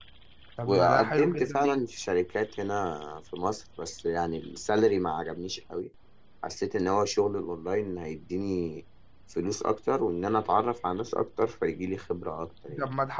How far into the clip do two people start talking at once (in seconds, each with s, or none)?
0.6 s